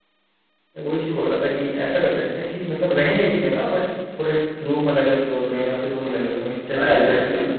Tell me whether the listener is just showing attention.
No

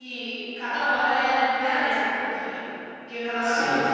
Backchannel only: Yes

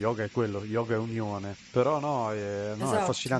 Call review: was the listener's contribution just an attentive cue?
Yes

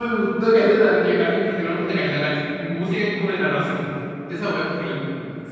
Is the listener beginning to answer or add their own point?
Yes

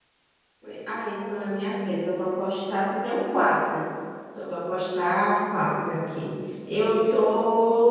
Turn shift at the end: No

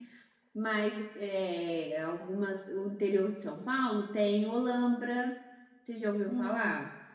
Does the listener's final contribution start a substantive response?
Yes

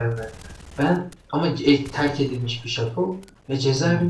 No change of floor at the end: Yes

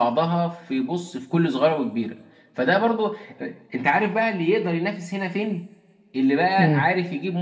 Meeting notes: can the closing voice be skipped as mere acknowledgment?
Yes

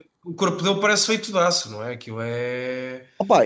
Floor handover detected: Yes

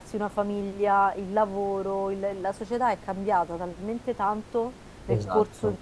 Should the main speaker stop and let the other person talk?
No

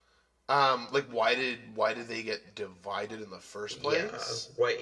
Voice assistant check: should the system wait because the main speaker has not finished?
No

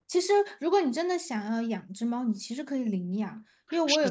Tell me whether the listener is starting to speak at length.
No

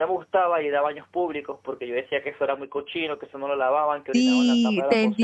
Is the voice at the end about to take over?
Yes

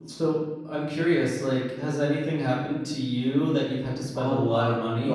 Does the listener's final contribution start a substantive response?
Yes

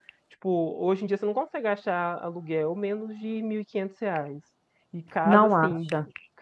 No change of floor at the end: Yes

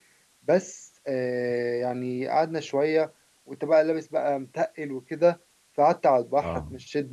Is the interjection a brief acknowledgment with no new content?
Yes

